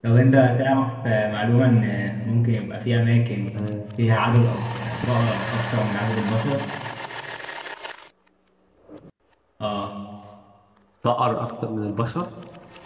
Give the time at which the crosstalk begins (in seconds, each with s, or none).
none